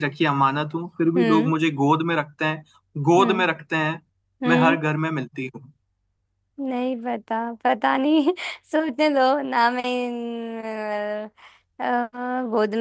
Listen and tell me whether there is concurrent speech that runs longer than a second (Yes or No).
No